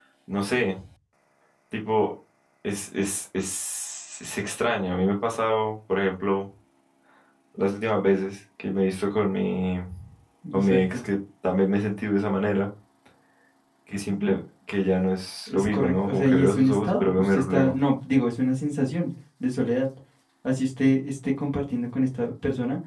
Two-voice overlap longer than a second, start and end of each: 15.5-17.8

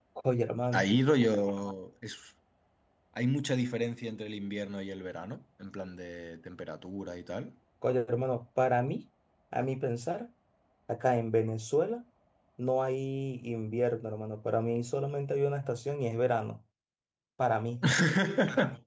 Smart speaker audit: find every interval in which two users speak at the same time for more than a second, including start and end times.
none

